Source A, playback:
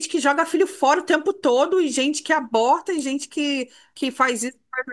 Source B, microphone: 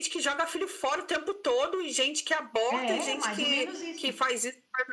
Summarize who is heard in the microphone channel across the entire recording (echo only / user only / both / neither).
both